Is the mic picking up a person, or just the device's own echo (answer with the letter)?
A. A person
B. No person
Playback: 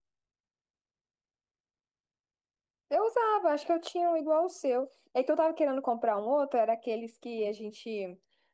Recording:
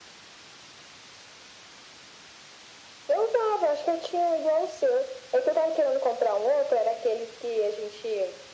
B